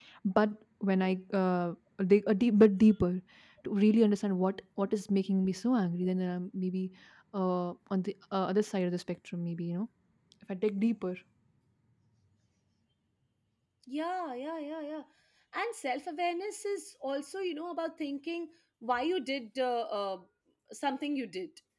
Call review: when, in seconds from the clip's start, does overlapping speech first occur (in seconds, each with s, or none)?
none